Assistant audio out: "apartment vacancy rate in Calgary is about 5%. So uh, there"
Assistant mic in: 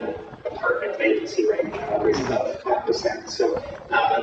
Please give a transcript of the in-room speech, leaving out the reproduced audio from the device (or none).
mhm